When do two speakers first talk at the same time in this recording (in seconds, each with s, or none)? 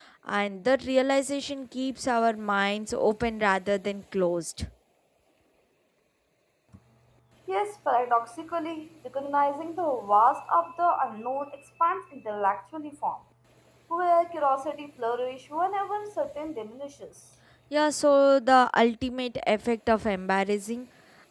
none